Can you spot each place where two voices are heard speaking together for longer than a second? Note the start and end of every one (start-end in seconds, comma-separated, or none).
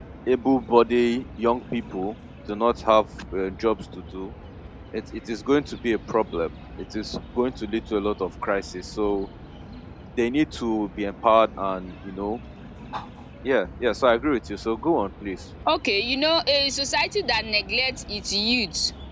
none